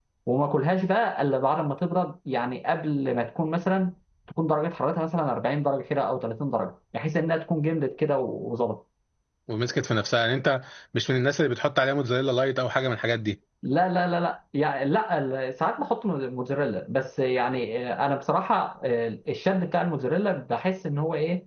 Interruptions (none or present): none